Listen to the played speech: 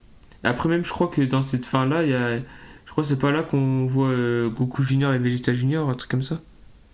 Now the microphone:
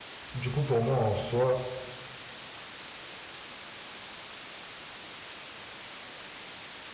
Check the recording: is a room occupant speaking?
Yes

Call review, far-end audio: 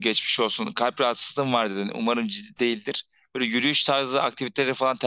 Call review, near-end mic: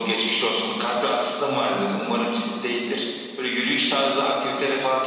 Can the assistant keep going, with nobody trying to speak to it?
Yes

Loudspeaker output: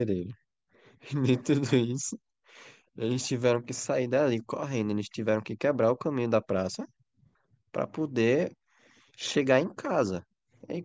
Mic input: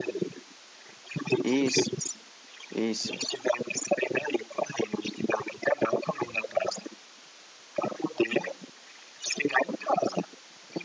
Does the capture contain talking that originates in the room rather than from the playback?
Yes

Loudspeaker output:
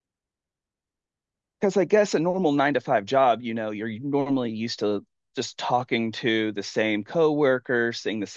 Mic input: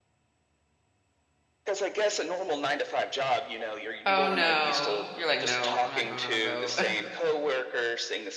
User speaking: Yes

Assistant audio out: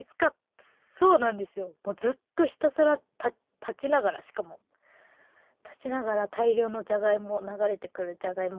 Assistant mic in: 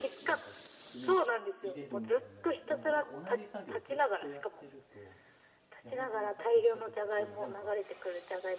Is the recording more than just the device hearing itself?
Yes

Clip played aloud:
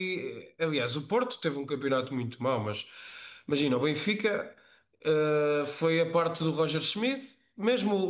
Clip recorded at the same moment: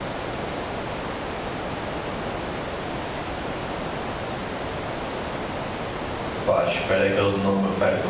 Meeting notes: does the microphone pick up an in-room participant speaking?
Yes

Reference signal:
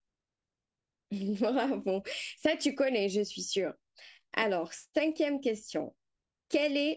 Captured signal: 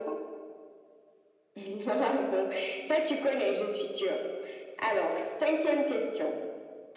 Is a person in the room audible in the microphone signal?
No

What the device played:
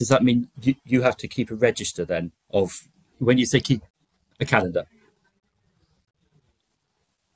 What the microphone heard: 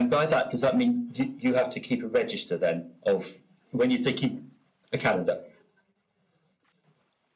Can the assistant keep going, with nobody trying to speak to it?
Yes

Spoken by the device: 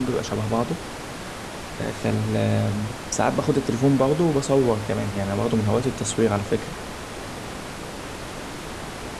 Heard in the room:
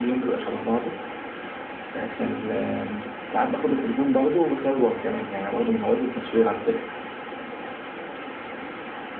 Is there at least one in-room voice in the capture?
No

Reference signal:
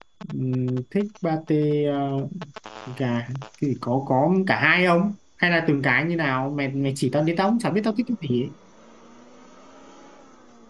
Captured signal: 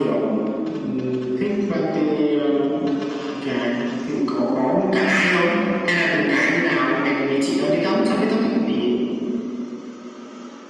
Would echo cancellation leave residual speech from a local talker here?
No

